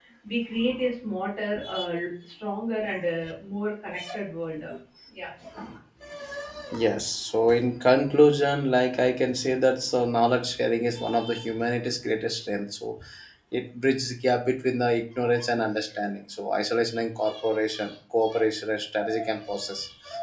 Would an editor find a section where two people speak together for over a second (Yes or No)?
No